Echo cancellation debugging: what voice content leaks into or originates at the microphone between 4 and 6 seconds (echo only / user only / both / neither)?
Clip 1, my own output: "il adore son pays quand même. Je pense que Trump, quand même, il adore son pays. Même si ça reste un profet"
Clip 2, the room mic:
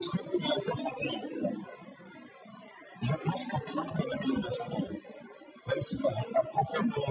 echo only